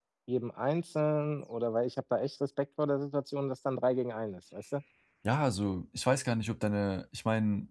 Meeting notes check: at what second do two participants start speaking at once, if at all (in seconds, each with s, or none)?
none